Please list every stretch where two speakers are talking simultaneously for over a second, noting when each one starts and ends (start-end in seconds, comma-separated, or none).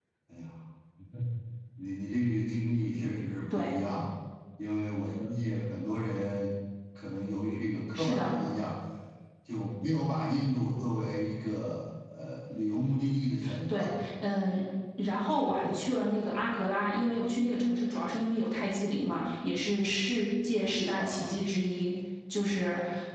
none